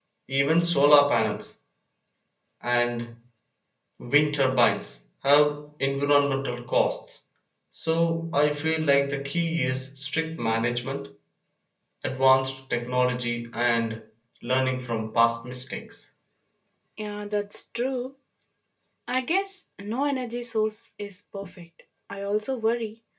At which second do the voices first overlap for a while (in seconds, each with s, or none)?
none